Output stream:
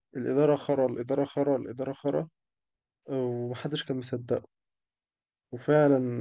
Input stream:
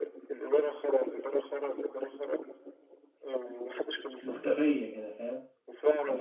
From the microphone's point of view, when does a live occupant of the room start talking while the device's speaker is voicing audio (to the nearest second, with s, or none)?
4 s